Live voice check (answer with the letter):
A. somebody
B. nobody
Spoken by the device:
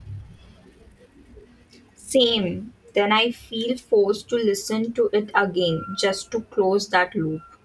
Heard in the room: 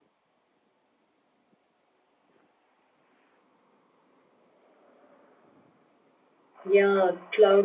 A